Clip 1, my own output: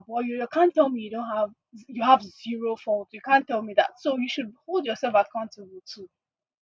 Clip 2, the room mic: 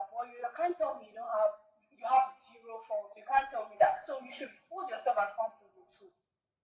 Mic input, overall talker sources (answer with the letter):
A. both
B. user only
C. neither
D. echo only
D